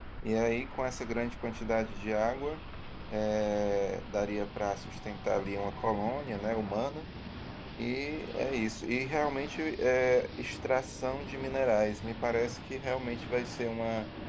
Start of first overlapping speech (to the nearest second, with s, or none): none